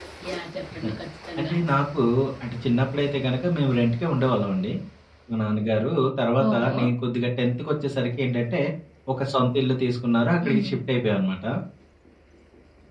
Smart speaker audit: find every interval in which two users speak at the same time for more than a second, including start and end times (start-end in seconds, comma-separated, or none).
none